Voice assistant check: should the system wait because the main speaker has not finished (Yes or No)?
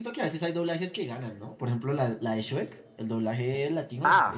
No